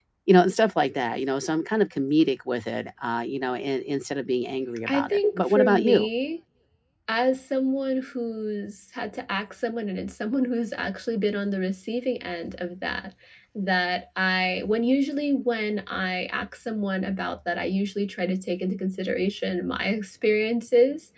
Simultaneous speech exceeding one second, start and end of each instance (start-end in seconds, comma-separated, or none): 4.9-6.1